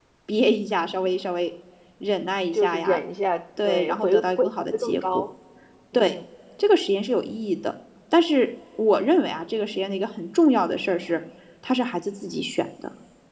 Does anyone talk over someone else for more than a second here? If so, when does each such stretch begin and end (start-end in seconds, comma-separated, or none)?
3.6-5.2